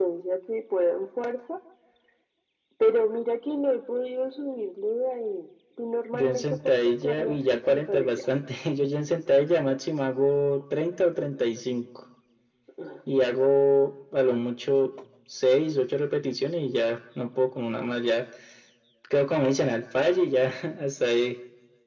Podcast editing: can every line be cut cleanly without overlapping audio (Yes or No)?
No